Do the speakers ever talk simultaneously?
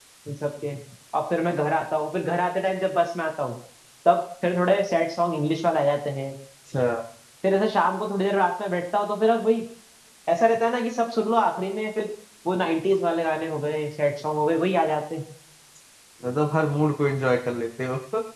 No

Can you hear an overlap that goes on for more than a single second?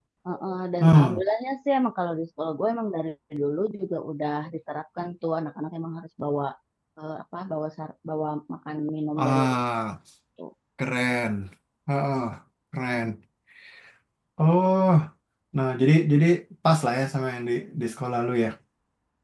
No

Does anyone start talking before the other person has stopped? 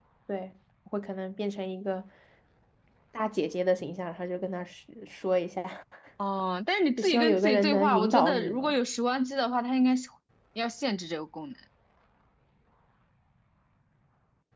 Yes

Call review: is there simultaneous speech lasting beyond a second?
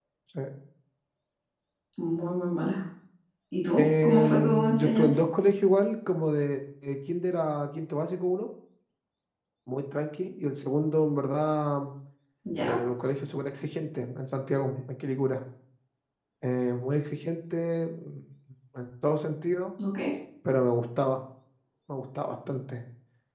Yes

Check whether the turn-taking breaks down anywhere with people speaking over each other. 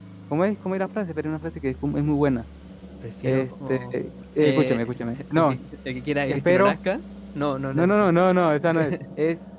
Yes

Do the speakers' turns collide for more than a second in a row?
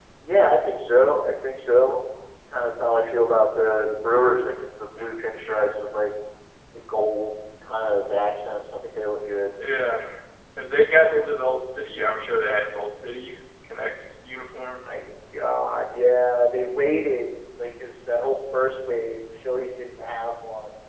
No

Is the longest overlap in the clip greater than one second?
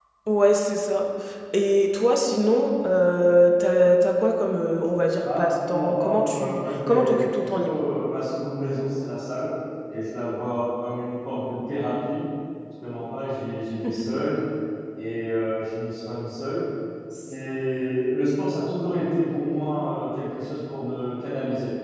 Yes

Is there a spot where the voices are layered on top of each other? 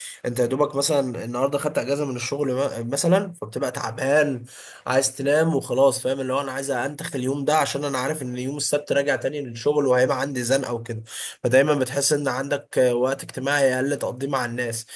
No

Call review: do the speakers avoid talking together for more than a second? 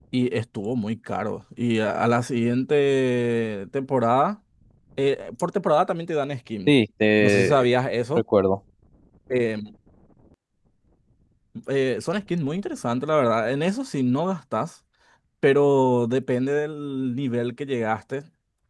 Yes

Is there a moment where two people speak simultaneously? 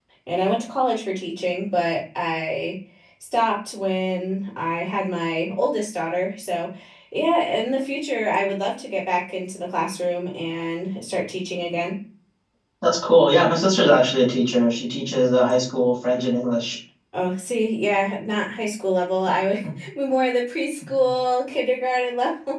No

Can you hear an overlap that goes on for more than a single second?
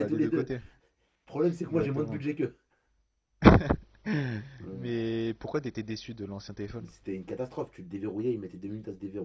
No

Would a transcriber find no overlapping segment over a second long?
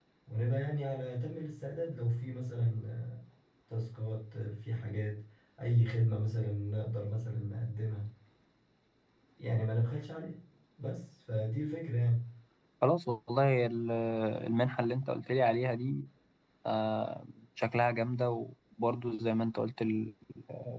Yes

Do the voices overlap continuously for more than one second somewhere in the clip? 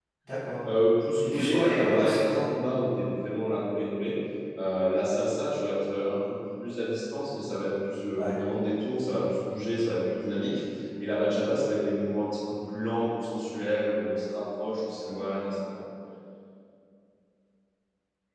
Yes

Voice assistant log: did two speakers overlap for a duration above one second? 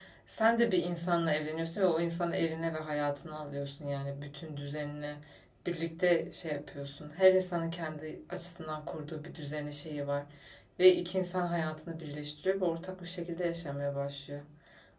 No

